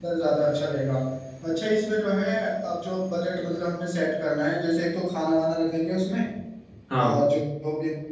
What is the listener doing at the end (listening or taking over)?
listening